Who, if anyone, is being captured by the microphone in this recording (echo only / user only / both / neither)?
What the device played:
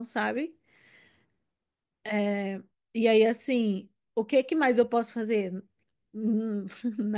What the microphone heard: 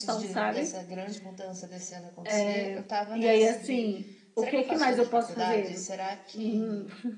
both